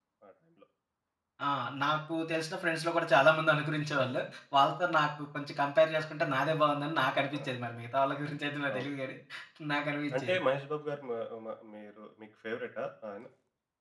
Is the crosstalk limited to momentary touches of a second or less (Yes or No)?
Yes